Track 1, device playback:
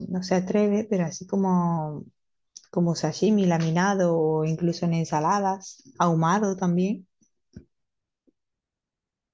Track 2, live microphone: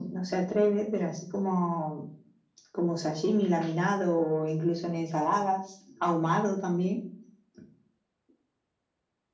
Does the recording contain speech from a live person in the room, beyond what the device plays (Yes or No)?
No